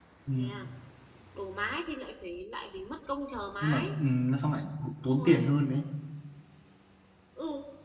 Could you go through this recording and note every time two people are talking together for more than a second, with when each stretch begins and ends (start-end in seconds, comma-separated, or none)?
none